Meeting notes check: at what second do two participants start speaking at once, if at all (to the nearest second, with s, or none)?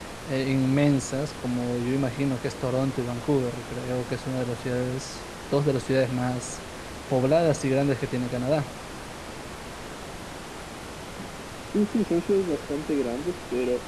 none